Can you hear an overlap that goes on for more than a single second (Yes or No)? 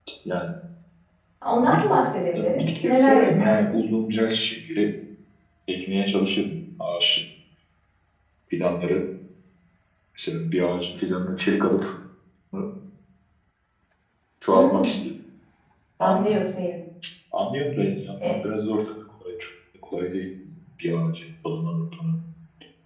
Yes